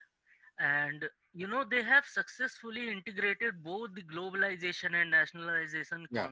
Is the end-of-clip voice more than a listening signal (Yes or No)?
No